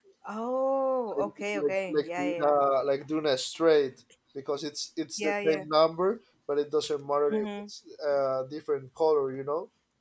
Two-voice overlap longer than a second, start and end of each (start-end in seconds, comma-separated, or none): 1.2-2.5